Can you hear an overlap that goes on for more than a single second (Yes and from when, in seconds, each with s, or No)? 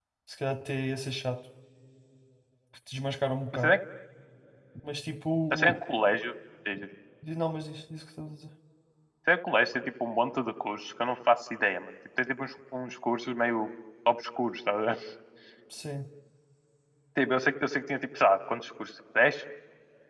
No